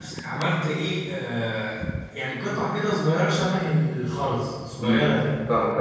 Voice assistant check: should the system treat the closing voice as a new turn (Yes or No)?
Yes